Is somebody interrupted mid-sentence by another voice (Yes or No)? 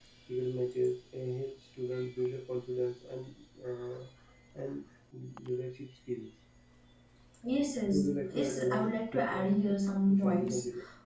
Yes